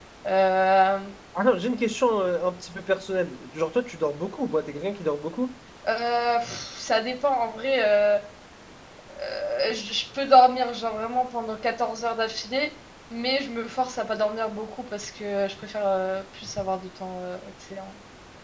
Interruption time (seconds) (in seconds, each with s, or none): none